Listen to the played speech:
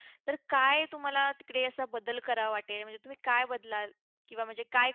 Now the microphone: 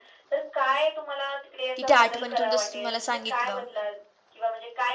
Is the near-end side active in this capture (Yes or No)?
Yes